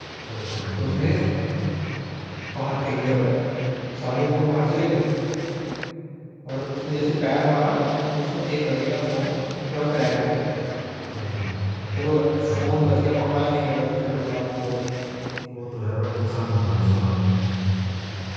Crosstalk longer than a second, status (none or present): none